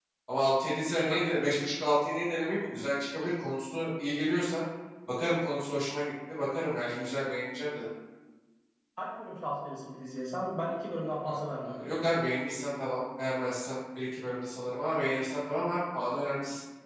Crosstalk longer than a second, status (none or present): none